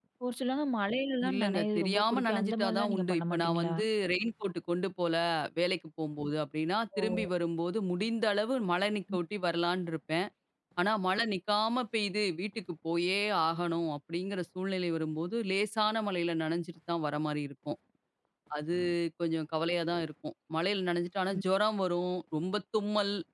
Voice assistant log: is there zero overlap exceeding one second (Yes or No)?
No